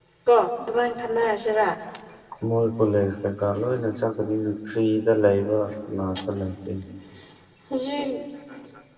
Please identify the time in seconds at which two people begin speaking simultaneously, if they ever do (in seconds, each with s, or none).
none